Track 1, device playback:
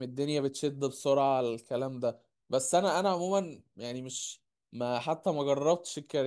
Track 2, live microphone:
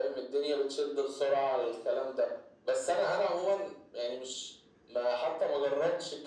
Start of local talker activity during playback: none

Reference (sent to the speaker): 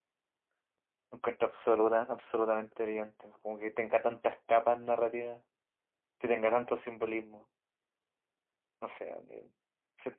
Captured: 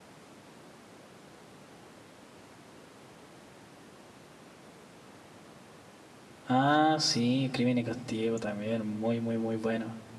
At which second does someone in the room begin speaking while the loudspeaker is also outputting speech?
6 s

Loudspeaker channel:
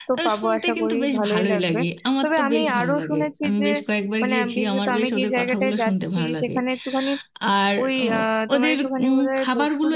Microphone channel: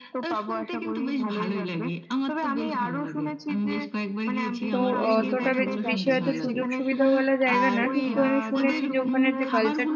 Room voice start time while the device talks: 5 s

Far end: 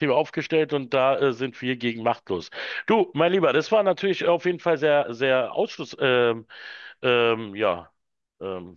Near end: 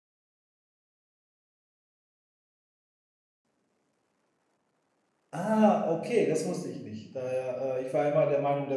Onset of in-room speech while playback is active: 5 s

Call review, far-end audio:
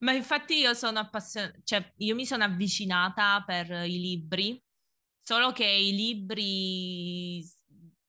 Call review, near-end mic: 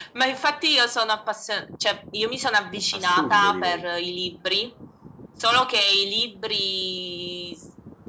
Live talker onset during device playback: 3 s

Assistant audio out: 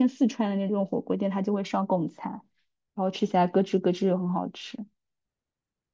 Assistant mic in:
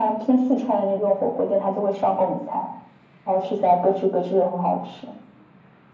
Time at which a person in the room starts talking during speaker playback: none

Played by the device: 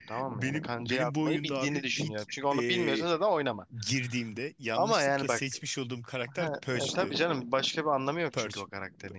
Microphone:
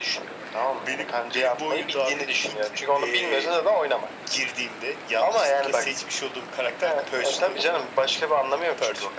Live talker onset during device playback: none

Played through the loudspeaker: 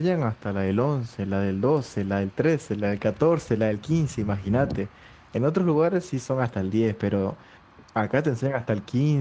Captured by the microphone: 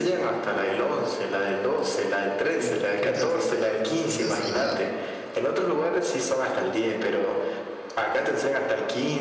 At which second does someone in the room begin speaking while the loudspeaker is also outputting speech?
3 s

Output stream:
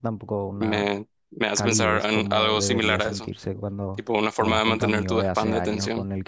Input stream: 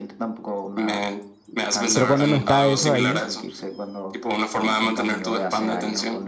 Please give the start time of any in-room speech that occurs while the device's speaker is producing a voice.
2 s

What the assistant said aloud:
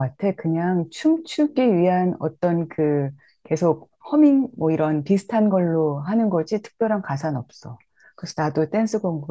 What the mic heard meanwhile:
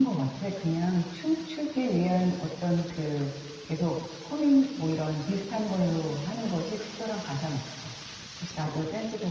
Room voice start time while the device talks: none

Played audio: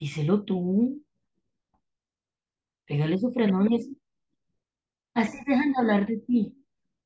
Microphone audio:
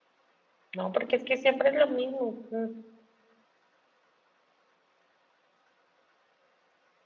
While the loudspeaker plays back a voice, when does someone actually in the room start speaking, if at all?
1 s

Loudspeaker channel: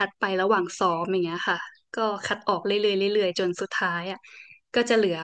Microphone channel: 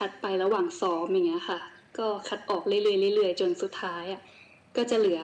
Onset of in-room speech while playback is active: none

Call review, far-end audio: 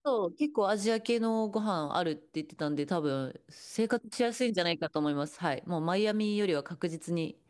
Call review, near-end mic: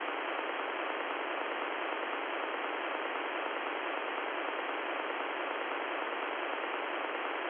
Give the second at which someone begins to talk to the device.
none

